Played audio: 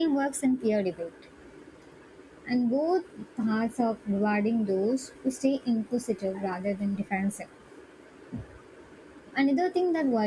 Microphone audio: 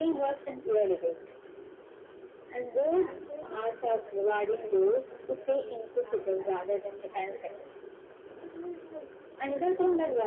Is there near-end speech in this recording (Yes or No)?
Yes